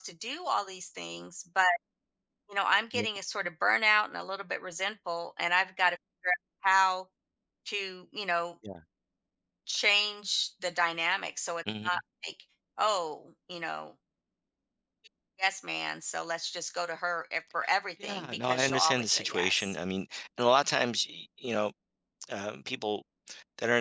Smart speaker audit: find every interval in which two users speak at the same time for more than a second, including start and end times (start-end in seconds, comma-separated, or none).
18.0-19.7